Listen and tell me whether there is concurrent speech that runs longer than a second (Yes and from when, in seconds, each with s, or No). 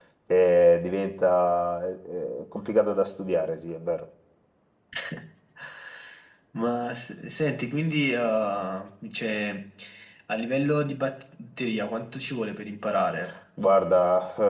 No